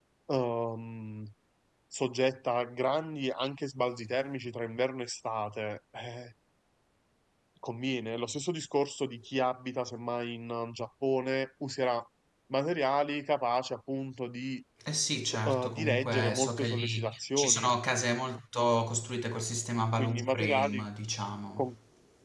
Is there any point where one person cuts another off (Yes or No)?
Yes